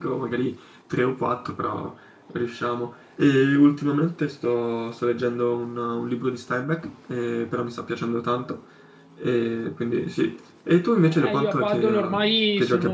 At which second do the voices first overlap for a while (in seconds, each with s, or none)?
11.0 s